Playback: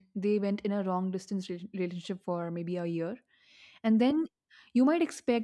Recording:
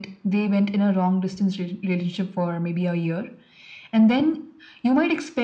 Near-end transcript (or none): none